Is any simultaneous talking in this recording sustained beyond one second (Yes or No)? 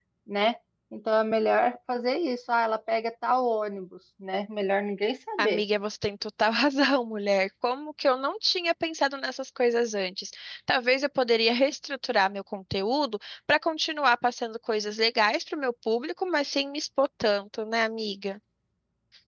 No